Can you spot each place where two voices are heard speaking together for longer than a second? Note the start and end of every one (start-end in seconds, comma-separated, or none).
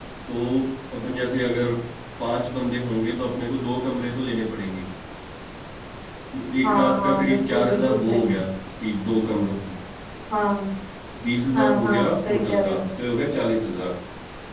6.6-8.3, 11.5-12.8